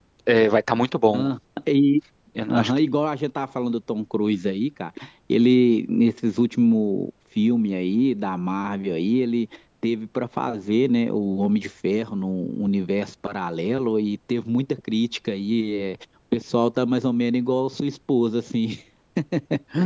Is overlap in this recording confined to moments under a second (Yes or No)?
Yes